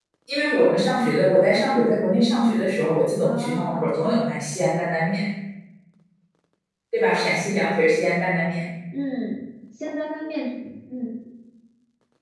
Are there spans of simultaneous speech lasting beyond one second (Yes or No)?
No